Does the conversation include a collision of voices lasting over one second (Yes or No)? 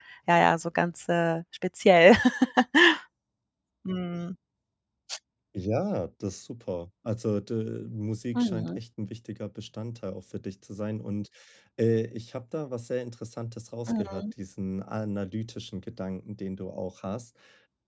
No